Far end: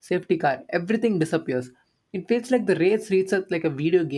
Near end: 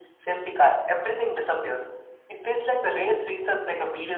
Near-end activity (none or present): none